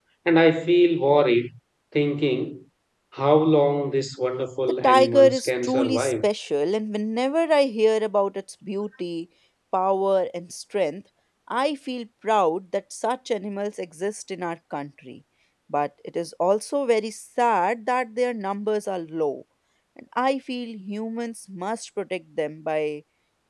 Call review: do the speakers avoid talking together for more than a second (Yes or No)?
No